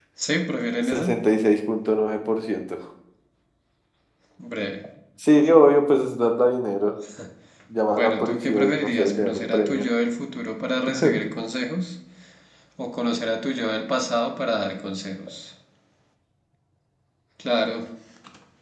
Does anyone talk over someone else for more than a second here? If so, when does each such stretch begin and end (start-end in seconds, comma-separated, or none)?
7.9-9.8